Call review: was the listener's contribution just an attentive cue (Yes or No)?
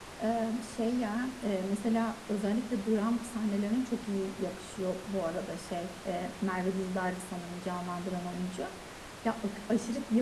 Yes